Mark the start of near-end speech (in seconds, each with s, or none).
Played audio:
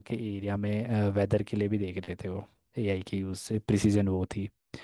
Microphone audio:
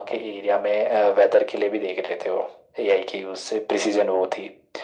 none